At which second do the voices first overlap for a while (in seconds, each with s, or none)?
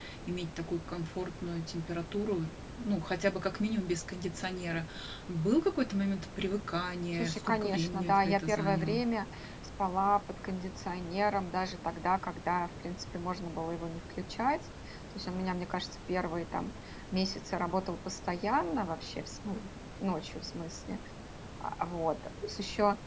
7.1 s